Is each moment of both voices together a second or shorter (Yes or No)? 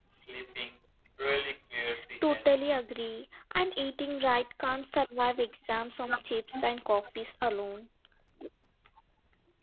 Yes